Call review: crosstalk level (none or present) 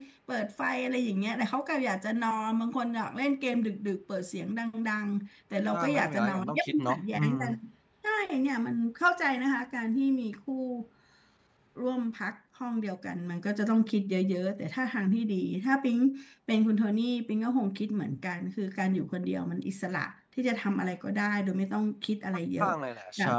present